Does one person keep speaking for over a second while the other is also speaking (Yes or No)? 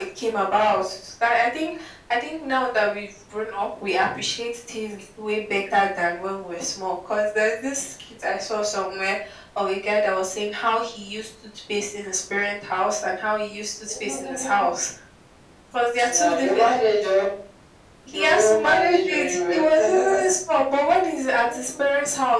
Yes